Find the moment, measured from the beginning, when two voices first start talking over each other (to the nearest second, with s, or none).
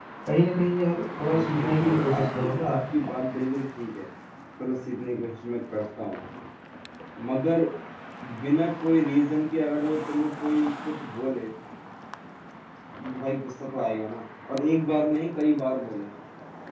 1 s